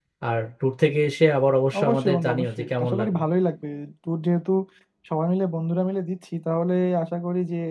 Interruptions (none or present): present